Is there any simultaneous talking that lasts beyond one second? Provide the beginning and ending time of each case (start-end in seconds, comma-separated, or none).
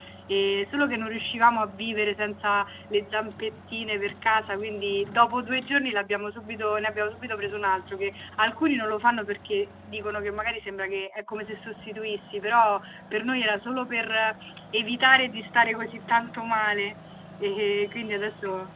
none